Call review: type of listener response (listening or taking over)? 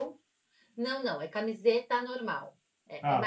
listening